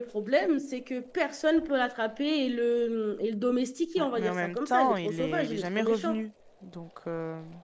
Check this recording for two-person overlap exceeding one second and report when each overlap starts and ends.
4.0-6.2

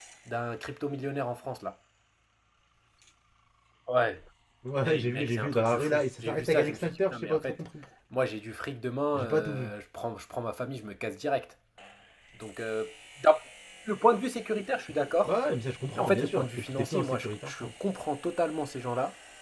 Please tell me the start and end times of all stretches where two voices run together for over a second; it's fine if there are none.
4.8-7.6, 15.9-17.7

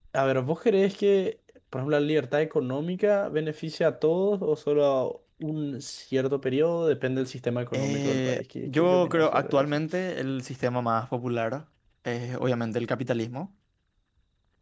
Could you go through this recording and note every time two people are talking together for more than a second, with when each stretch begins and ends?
7.7-9.7

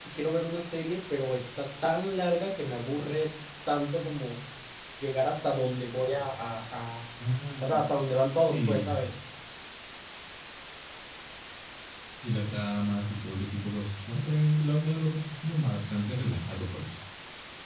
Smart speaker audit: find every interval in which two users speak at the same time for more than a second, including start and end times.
none

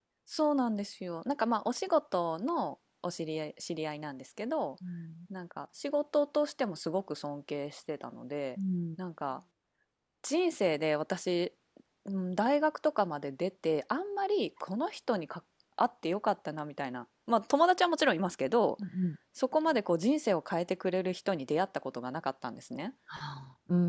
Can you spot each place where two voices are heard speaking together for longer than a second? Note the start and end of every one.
none

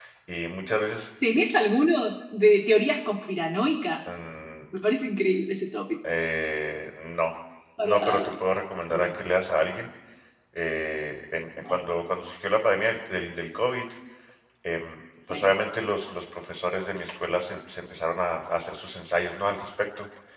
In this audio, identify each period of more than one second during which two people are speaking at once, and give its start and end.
none

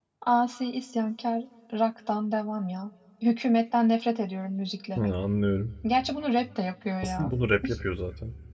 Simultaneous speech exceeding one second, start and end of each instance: none

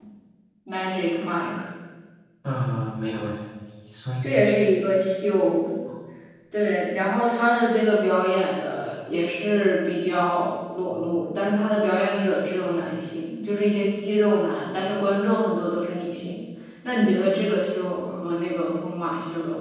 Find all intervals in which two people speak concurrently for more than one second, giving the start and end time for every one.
none

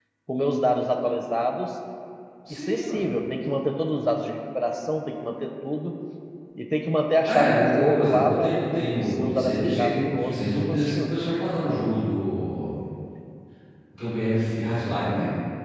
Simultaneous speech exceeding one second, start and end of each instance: 7.3-11.2

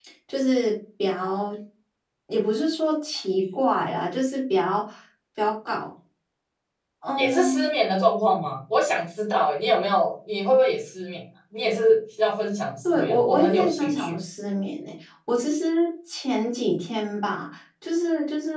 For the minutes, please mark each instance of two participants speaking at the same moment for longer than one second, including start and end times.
12.8-14.1

